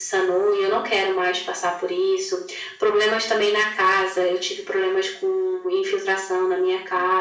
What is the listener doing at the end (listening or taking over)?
listening